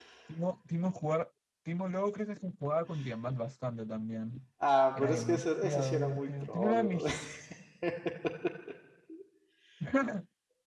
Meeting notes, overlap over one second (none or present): present